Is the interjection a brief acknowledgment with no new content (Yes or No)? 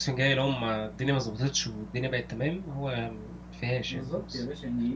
No